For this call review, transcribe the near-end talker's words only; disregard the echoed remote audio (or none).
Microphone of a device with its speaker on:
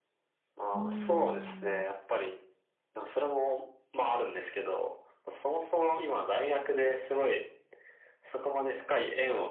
うーん。